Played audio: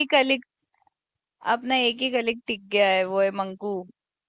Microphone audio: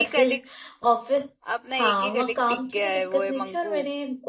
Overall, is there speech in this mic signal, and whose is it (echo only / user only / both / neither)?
both